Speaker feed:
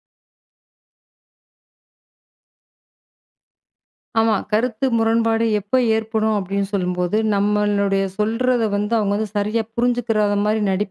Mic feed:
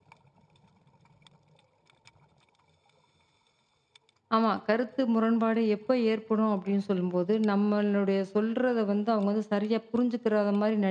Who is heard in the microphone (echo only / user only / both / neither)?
echo only